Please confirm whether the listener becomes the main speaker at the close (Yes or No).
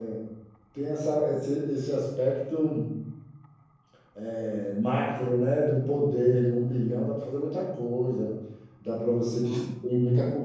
No